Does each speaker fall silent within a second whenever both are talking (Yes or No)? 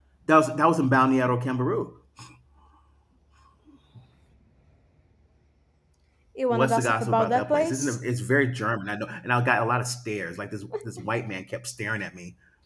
No